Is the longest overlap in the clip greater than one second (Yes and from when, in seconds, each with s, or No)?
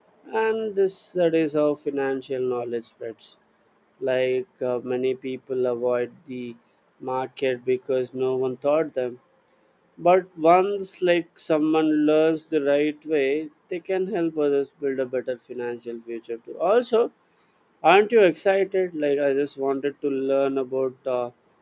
No